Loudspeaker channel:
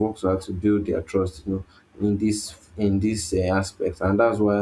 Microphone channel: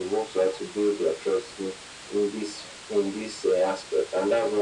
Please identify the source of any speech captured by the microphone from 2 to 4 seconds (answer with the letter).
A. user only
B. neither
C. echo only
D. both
C